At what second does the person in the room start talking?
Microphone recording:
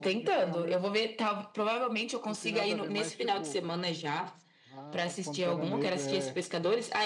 2 s

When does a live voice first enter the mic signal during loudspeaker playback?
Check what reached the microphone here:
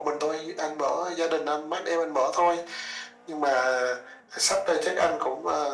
none

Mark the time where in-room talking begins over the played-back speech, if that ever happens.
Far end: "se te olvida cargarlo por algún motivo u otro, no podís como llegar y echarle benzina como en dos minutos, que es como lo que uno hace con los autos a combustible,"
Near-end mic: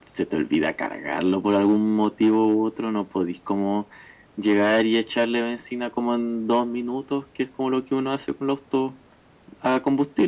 none

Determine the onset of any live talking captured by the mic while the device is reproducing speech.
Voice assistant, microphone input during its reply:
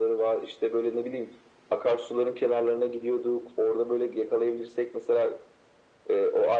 none

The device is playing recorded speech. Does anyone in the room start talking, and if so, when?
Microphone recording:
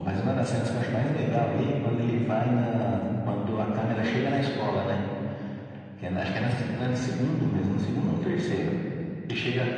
none

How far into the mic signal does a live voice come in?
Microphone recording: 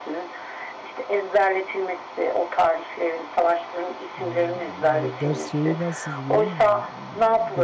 4 s

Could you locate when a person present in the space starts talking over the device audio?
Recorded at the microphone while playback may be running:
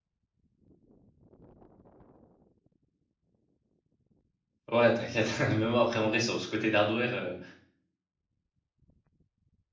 5 s

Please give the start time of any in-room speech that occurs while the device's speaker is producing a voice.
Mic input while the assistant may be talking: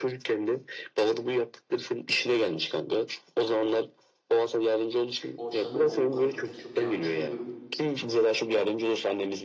5 s

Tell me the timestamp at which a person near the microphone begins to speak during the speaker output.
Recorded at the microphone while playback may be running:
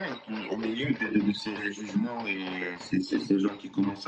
none

